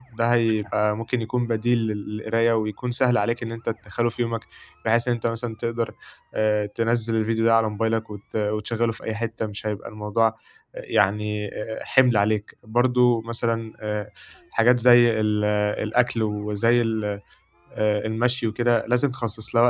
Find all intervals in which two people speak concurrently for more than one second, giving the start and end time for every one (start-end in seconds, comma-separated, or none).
none